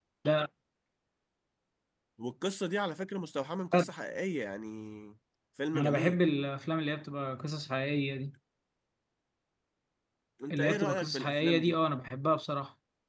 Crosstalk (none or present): present